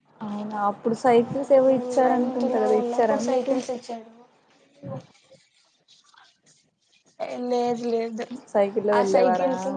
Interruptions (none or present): present